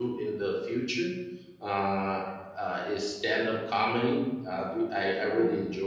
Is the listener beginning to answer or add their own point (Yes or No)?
No